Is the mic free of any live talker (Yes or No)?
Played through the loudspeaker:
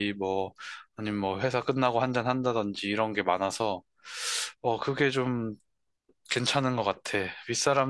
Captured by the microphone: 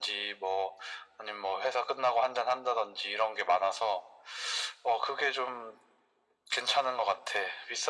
Yes